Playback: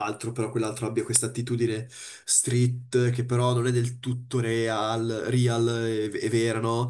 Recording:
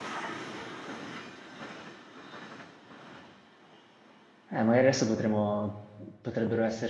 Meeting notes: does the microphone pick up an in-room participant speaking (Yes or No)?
Yes